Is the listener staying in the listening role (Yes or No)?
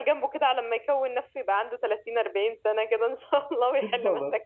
No